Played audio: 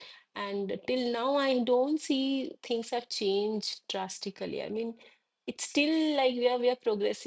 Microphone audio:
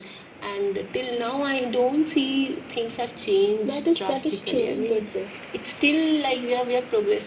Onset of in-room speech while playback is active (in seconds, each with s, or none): 3.6 s